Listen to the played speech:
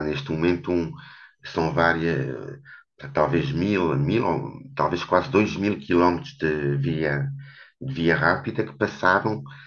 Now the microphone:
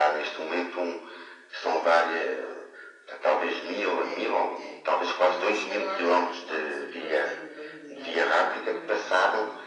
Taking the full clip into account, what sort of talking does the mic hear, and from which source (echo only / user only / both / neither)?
both